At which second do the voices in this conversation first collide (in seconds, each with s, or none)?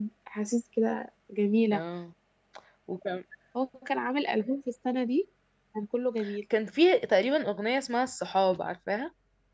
none